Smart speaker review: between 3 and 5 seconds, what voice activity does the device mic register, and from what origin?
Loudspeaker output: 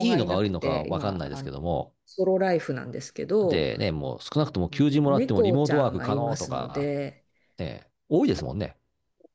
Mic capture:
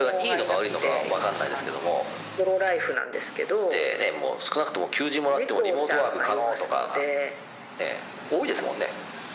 echo only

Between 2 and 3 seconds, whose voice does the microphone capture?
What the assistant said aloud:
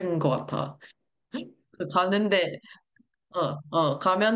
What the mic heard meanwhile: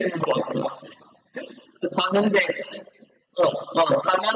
echo only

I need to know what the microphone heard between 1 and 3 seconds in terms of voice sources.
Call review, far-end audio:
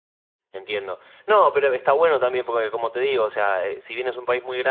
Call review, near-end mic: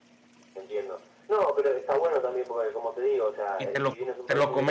echo only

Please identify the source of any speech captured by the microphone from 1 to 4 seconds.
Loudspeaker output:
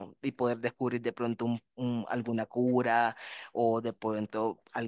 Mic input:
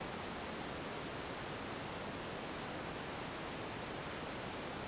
neither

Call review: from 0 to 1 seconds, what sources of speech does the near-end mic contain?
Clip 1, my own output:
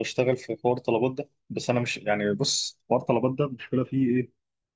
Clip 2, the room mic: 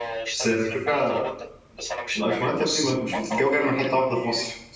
both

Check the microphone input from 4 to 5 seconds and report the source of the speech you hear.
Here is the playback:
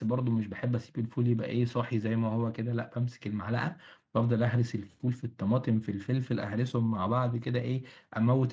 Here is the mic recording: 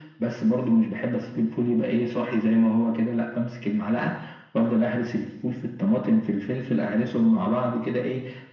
echo only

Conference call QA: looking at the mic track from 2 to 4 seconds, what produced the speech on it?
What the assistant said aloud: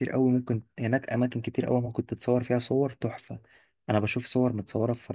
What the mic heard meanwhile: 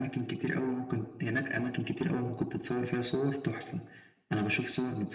echo only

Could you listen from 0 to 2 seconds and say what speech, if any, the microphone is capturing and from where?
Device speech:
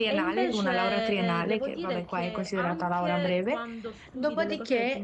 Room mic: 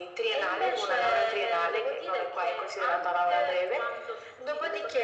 echo only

